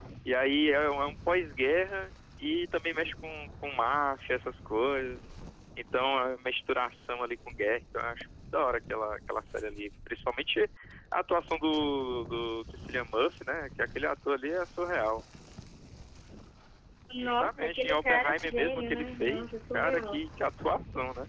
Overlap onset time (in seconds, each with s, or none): 17.2 s